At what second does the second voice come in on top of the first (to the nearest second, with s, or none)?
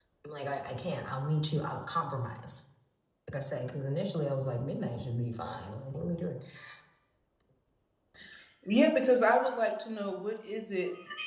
none